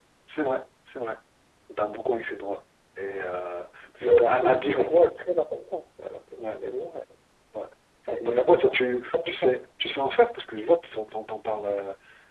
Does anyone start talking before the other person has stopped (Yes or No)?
Yes